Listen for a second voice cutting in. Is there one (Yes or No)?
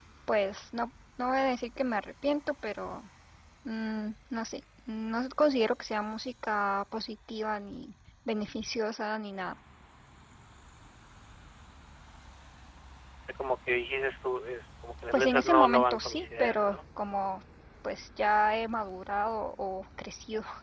Yes